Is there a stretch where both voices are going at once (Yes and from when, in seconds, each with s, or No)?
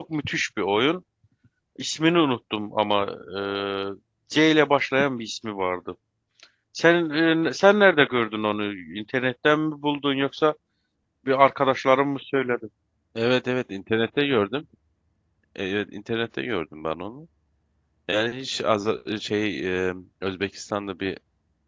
No